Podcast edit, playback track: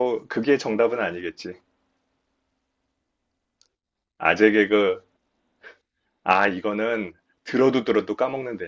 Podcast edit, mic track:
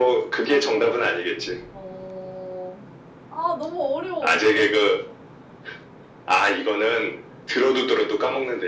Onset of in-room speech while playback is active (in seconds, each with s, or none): 0.4 s